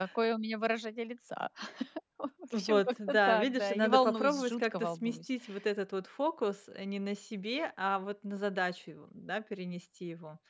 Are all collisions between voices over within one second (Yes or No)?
No